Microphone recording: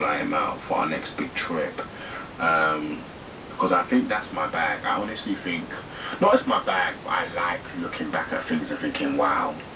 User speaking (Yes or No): No